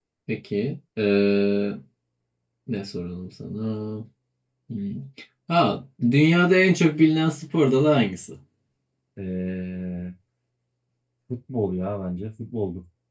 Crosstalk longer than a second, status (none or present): none